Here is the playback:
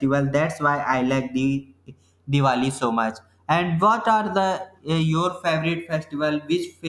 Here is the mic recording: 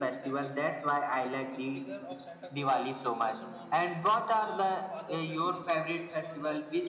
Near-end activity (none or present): present